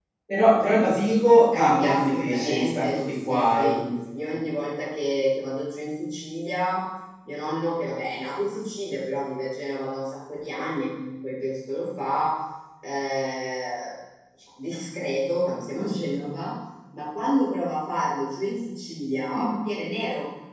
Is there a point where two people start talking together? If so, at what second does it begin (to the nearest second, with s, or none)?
2 s